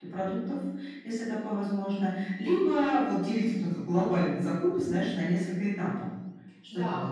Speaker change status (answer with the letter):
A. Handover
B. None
A